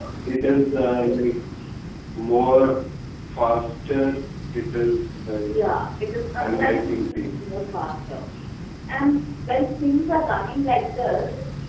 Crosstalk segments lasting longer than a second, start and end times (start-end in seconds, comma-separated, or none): 6.4-7.6